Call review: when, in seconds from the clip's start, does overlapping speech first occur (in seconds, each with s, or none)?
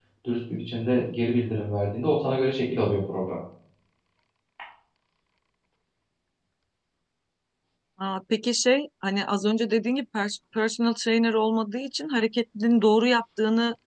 none